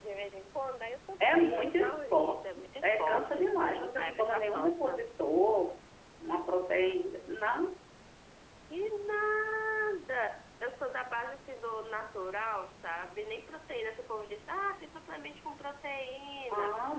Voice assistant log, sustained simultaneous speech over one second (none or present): present